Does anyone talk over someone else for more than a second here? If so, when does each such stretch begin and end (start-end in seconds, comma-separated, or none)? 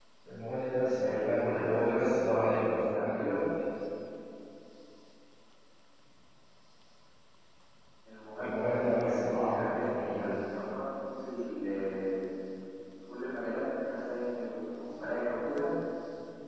1.0-3.4, 8.4-10.4